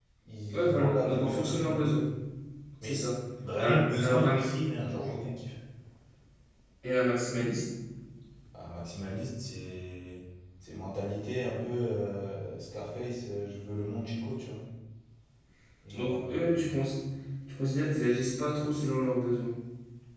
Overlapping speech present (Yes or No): Yes